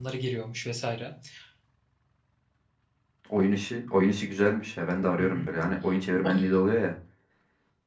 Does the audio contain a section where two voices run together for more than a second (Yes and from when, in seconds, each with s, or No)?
No